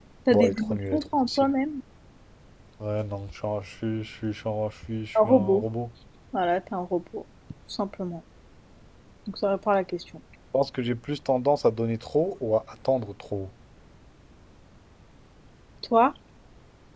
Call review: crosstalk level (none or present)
present